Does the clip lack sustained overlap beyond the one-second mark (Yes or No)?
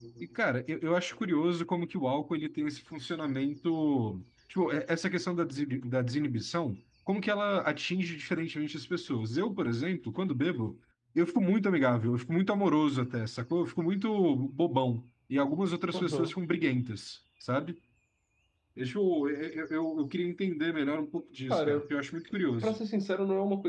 Yes